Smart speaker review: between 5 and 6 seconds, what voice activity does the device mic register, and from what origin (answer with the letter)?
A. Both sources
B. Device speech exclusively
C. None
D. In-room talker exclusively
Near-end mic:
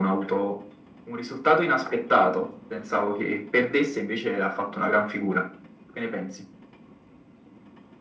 B